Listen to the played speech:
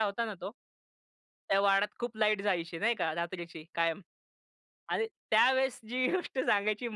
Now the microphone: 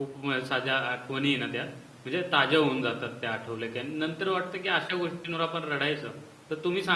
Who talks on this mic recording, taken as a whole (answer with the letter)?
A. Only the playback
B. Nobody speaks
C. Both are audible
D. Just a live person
D